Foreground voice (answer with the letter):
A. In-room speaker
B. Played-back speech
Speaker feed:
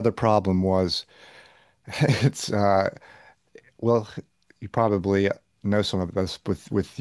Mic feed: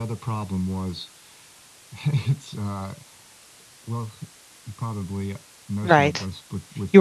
A